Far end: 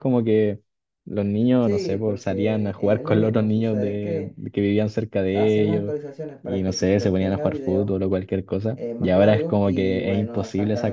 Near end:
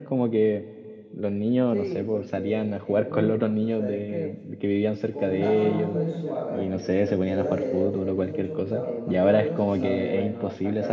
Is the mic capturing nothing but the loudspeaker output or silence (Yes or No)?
No